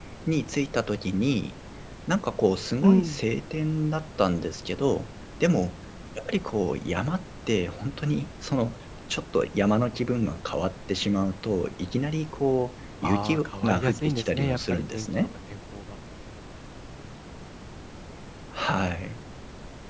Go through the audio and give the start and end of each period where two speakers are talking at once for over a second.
13.0-15.1

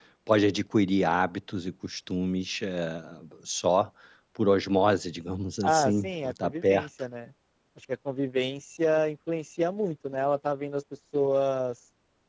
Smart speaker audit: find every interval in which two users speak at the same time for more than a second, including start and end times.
5.6-6.9

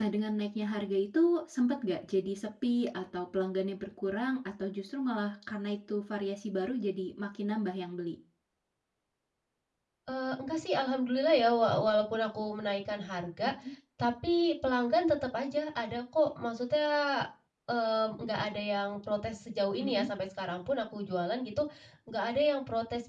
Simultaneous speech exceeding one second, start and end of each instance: none

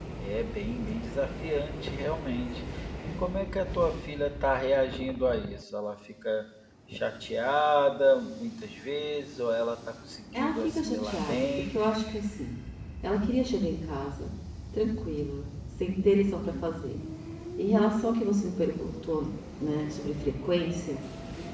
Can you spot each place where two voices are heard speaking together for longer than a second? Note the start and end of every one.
10.3-11.8

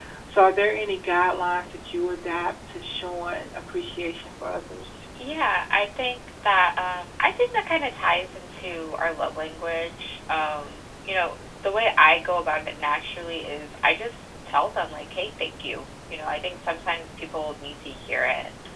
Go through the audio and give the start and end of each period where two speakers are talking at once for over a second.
none

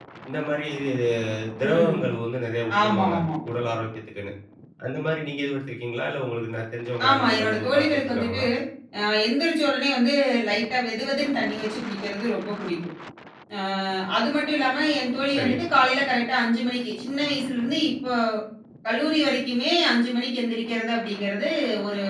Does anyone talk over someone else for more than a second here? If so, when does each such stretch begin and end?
7.1-8.4

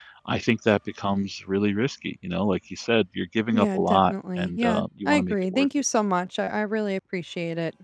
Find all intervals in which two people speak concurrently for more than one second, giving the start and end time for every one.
3.5-5.7

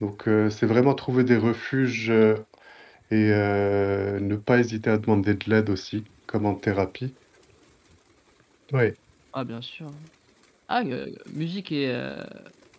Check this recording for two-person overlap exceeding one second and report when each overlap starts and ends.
none

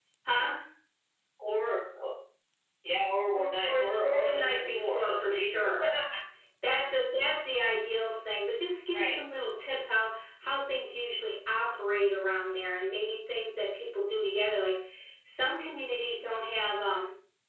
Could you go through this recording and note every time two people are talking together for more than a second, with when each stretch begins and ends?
3.4-5.7

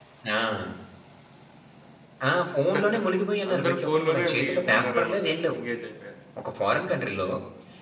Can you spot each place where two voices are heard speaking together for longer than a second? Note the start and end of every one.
3.5-5.6

